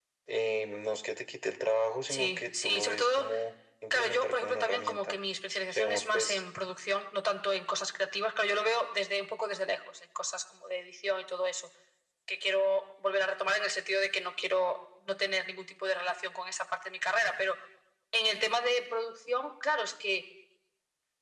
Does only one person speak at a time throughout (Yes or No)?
No